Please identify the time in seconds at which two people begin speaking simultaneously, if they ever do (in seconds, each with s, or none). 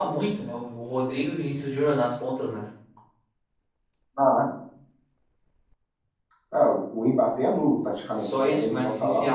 8.1 s